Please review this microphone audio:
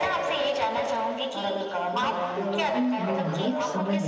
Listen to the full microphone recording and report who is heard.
both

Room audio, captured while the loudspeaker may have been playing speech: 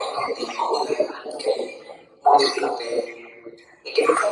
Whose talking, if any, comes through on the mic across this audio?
echo only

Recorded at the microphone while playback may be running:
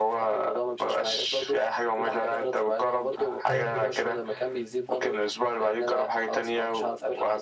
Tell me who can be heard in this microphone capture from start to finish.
both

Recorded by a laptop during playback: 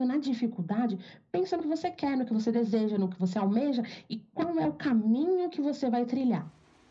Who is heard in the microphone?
echo only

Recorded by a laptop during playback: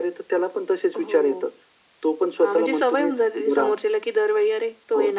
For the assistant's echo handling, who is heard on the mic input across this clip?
echo only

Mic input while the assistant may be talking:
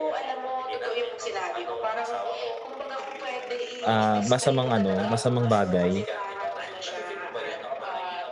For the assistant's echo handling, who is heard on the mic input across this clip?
both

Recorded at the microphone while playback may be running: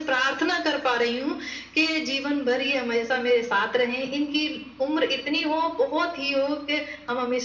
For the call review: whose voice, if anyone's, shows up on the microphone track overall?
echo only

